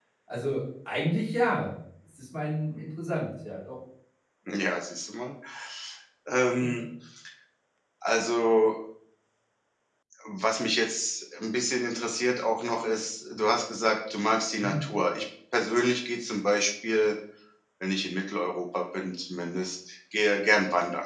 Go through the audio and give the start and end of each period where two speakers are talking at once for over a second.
none

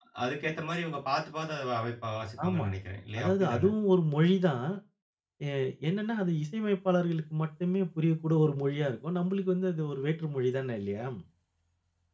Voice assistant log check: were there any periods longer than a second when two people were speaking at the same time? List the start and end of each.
none

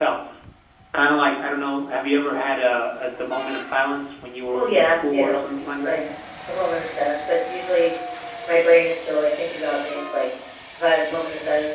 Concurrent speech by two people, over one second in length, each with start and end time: 4.5-6.0

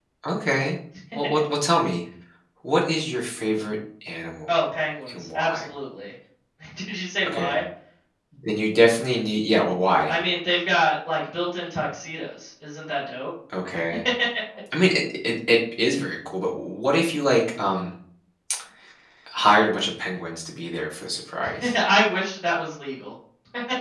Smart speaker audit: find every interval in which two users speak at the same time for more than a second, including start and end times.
none

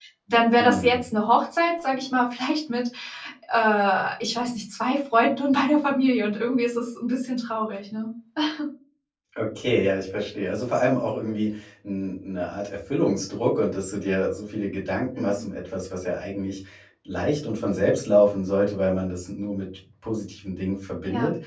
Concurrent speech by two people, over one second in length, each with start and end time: none

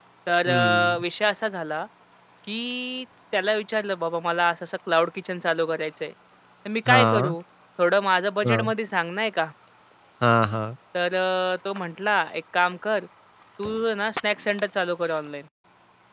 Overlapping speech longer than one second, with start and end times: none

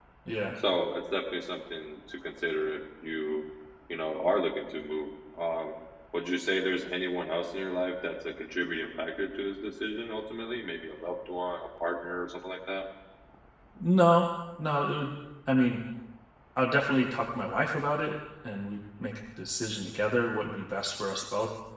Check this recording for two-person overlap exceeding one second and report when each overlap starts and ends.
none

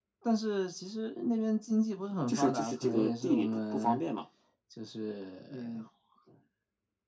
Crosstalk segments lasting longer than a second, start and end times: 2.3-4.0

